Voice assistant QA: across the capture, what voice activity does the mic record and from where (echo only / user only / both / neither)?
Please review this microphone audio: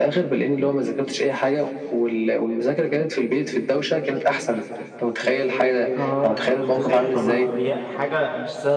both